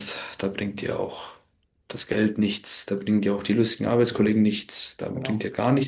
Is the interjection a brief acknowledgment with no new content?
Yes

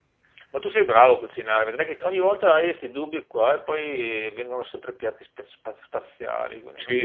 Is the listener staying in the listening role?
No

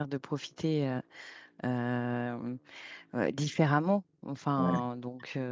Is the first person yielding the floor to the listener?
No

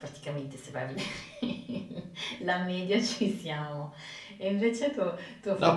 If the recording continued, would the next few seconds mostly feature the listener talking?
Yes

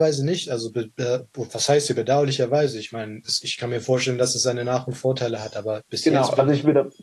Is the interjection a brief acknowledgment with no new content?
No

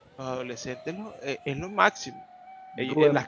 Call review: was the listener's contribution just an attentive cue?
Yes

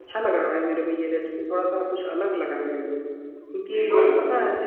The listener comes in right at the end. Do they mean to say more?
No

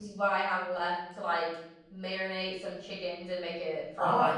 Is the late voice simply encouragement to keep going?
No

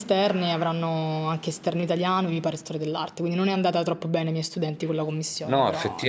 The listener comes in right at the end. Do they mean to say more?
Yes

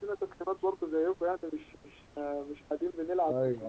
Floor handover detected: Yes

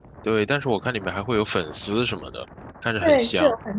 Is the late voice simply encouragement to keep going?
No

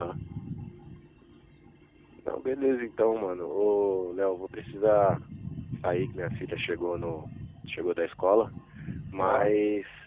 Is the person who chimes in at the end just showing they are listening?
Yes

